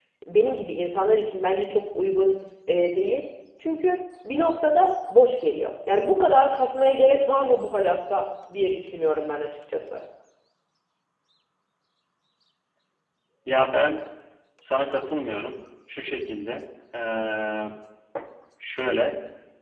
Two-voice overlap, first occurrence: none

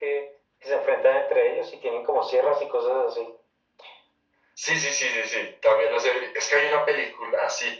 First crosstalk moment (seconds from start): none

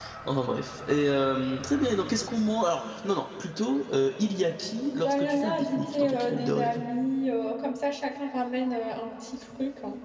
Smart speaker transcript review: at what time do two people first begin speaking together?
4.9 s

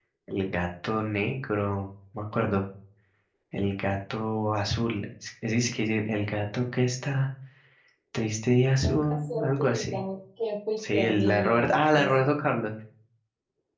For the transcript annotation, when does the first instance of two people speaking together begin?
8.8 s

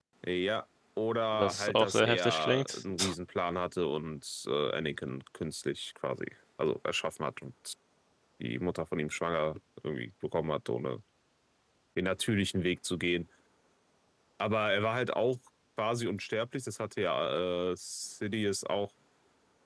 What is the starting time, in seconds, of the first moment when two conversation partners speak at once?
1.3 s

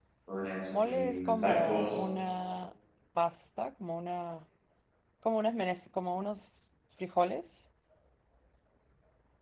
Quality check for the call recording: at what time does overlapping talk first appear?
0.7 s

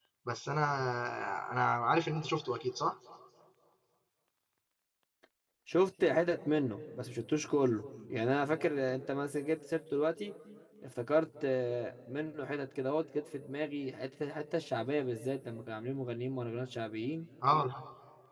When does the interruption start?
none

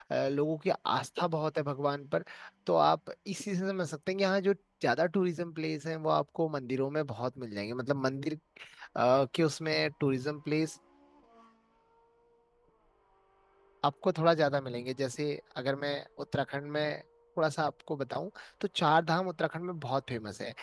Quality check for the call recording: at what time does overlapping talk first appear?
none

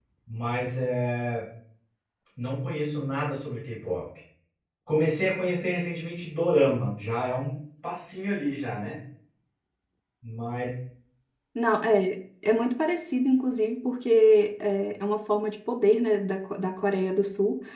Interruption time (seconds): none

